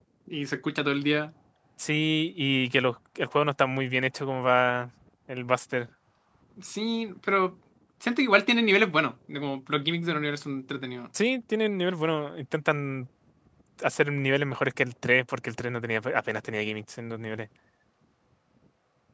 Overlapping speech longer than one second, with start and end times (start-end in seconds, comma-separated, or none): none